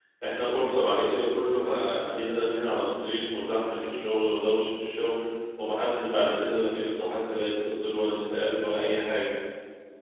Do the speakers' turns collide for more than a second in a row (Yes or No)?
No